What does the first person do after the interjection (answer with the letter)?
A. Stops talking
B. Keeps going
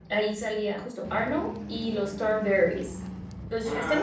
A